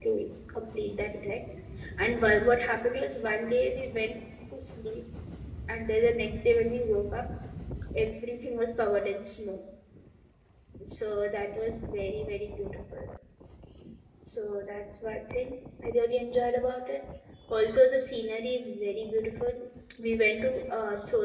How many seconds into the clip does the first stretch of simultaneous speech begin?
none

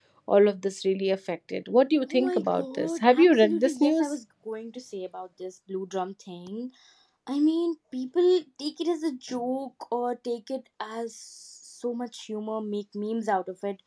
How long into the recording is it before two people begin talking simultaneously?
2.0 s

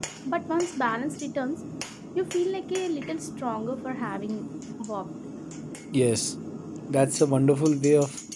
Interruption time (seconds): none

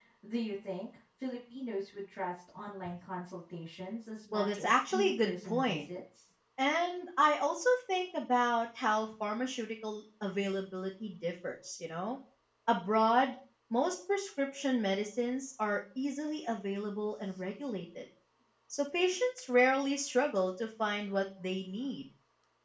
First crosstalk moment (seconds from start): 4.3 s

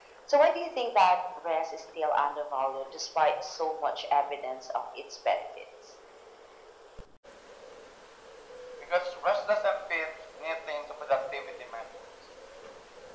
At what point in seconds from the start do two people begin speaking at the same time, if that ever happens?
none

